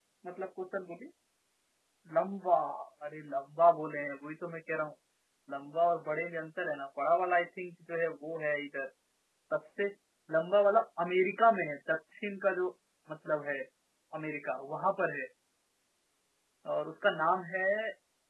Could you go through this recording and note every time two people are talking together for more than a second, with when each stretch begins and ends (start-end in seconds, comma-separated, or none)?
none